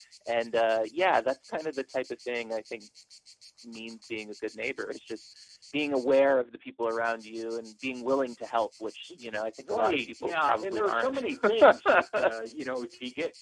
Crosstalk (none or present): present